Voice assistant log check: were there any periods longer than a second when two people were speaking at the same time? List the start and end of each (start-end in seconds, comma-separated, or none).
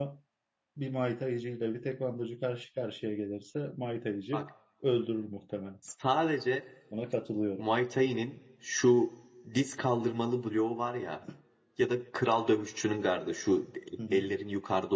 none